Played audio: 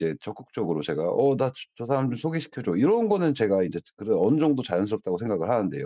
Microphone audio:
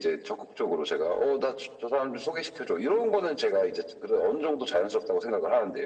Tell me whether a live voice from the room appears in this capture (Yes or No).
No